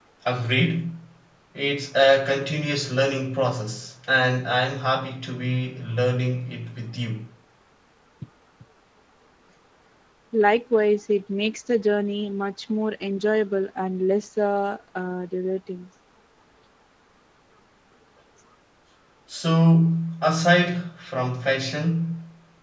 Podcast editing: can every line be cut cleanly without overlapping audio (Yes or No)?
Yes